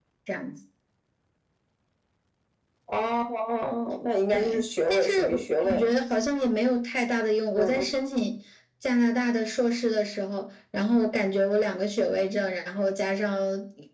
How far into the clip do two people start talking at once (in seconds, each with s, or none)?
4.3 s